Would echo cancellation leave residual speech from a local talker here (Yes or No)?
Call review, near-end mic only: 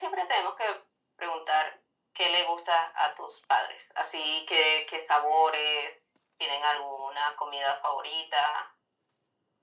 No